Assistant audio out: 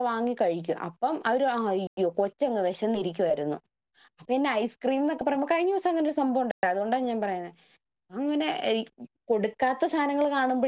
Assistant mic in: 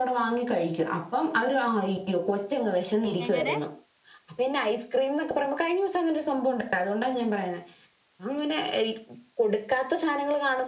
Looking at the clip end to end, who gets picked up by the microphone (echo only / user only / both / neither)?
both